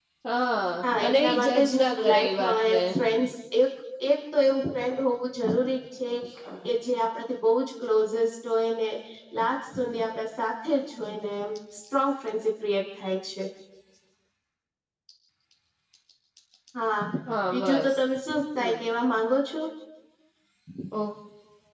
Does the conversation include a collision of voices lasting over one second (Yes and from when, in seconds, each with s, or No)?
Yes, from 0.8 s